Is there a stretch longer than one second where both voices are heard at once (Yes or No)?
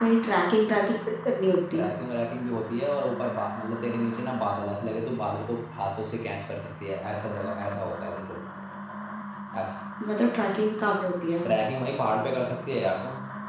No